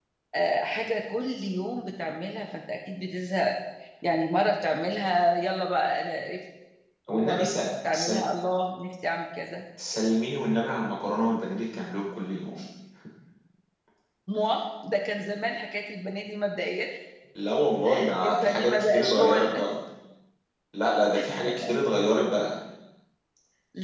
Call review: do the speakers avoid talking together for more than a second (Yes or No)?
No